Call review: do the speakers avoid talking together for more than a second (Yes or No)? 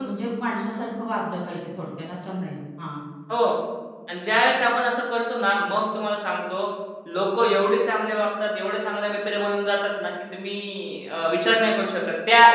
Yes